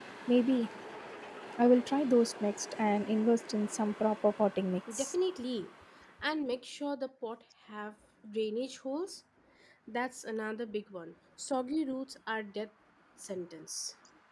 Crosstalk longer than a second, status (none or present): none